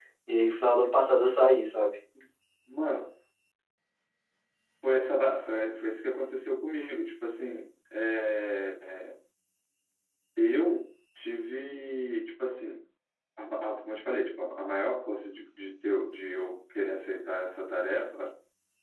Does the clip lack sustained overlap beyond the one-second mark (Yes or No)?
Yes